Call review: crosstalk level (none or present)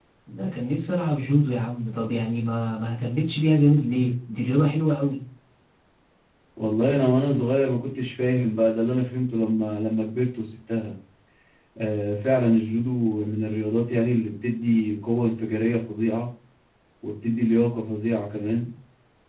none